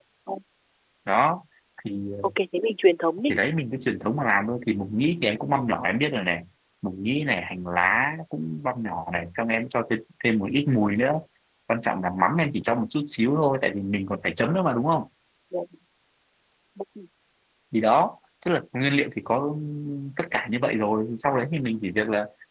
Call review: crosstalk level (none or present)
none